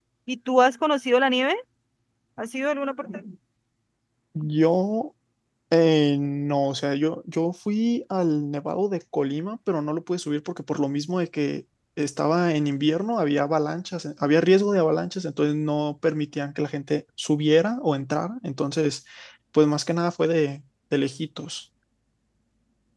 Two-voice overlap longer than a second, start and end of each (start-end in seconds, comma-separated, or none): none